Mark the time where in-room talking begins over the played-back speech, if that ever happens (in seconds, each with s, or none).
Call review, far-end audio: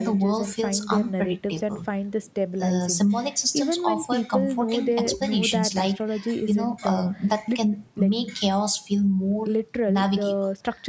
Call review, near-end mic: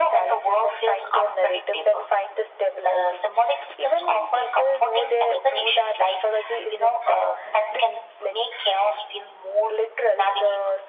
none